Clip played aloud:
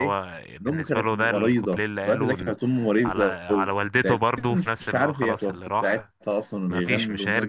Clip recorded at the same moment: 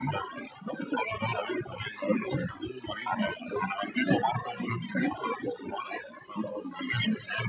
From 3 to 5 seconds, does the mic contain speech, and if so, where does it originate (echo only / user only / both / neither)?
echo only